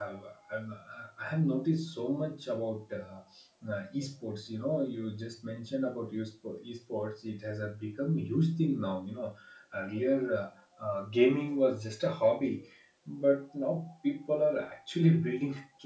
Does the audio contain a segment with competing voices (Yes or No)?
No